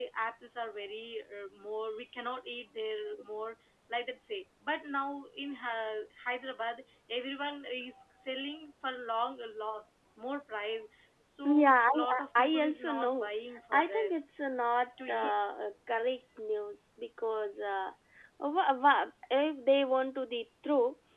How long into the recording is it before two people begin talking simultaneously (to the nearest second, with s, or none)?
12 s